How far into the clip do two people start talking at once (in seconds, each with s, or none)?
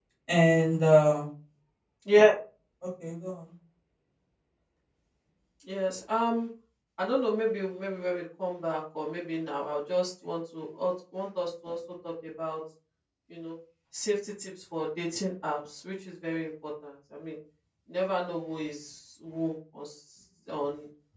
none